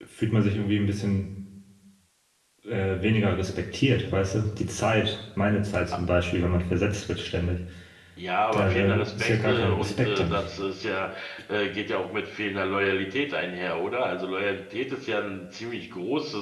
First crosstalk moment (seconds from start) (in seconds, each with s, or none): 8.5 s